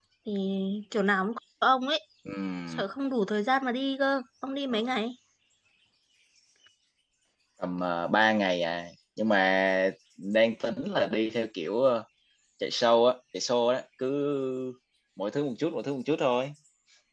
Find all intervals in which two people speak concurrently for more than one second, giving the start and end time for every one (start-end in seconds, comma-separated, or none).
none